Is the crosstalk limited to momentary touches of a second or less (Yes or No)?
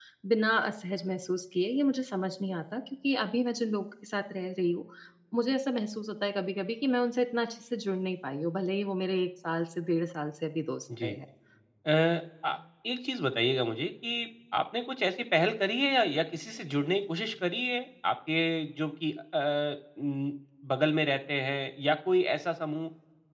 Yes